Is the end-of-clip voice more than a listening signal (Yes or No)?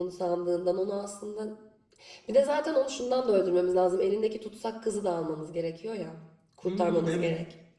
Yes